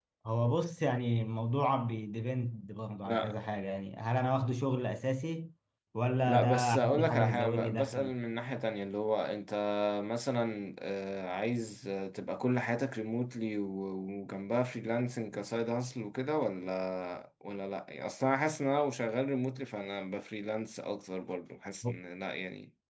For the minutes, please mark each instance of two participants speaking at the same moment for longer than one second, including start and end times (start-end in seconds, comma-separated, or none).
6.2-8.2